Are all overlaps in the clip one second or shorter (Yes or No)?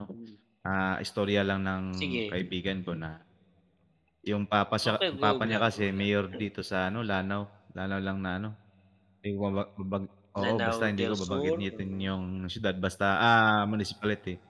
No